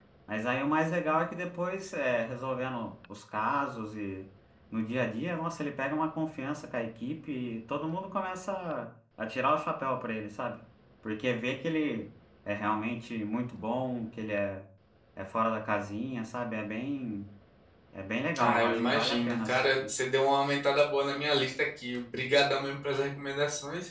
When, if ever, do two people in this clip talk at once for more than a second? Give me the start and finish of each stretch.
18.4-19.9

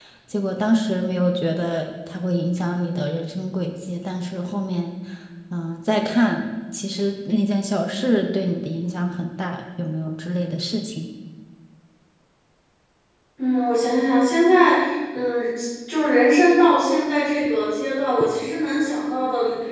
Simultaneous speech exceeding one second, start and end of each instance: none

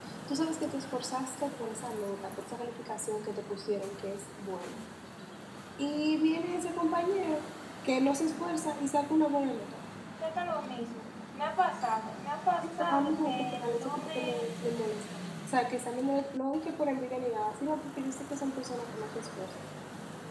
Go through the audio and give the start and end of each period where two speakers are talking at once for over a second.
12.8-14.4

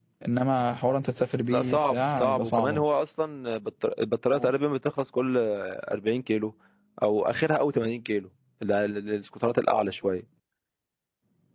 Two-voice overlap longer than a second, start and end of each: 1.5-2.8

